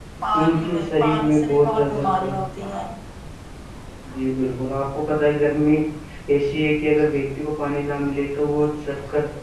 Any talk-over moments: Yes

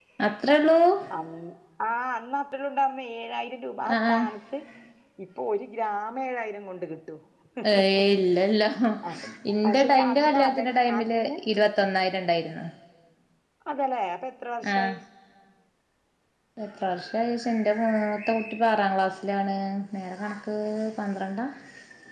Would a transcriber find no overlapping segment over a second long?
No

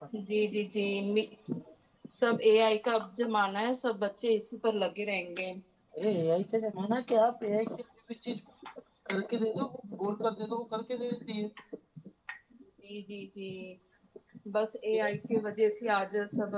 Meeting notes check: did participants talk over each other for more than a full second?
No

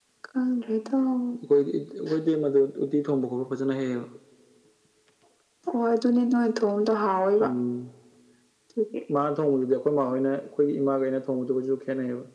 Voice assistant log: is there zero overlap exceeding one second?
Yes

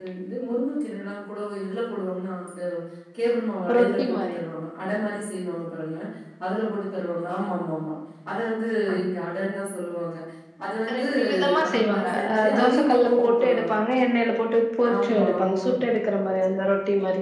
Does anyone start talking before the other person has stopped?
Yes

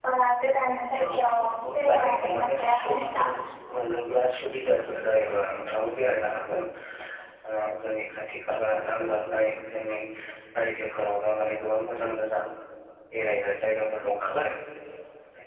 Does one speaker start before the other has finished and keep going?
Yes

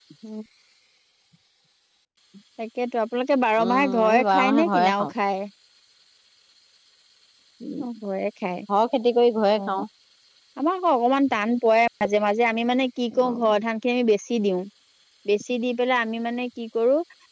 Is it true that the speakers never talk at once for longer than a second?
No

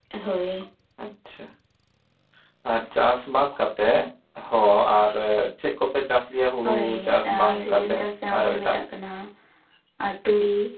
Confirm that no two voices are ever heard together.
No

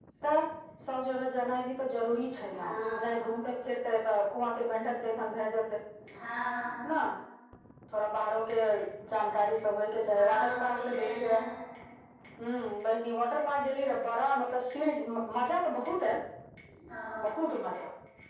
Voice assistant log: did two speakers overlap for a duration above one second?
Yes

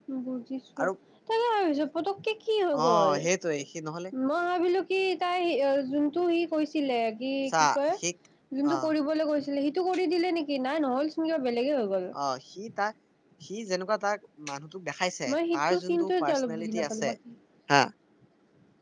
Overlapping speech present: Yes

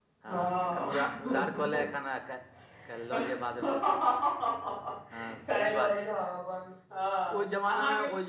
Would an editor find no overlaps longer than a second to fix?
No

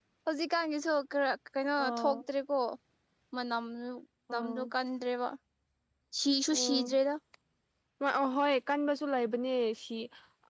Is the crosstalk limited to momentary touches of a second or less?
Yes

